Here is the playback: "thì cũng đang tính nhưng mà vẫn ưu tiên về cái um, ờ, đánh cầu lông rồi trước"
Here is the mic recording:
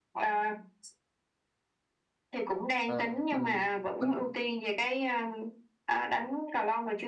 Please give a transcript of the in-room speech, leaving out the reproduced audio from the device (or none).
à, mình mình